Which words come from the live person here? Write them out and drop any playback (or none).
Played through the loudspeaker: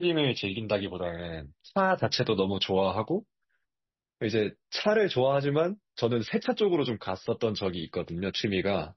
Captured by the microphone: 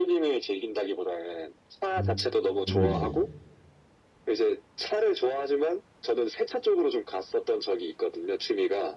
음, 저도 이제